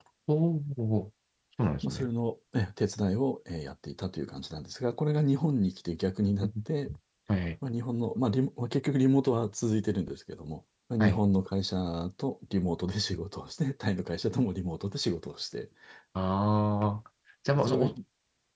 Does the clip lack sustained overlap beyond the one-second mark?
Yes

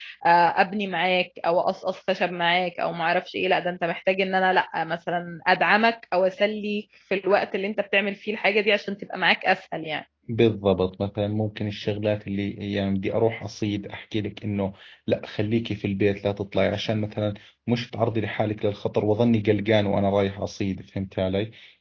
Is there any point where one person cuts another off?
No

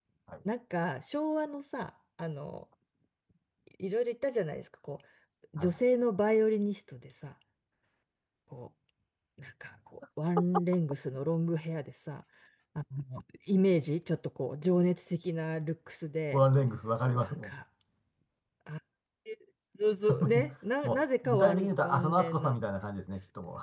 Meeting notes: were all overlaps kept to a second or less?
No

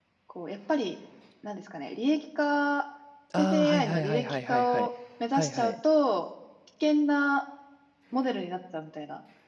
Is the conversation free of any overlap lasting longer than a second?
No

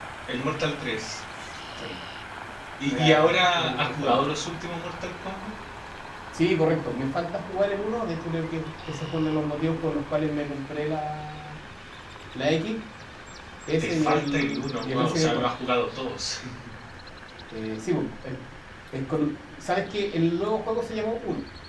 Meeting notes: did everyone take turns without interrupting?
No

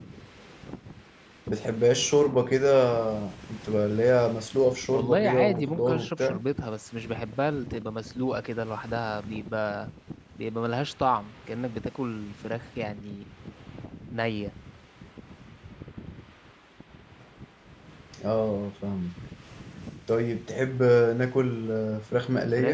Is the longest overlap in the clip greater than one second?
Yes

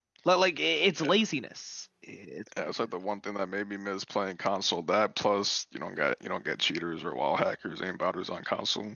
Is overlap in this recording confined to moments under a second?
Yes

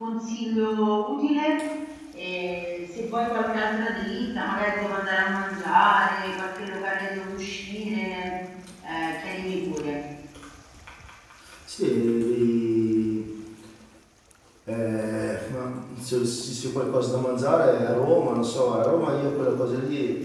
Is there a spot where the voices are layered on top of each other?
No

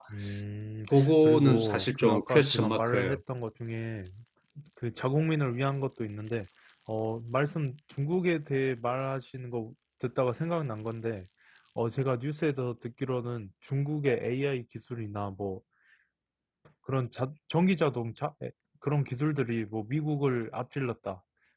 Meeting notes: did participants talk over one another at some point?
Yes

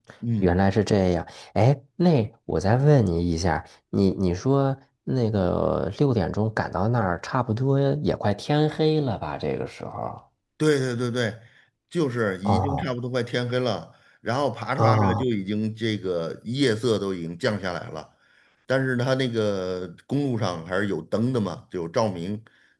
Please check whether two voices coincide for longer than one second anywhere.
No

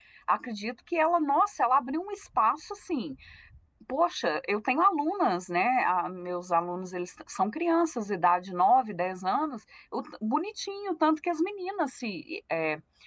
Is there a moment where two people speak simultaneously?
No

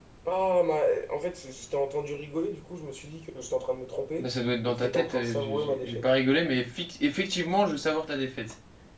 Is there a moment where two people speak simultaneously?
Yes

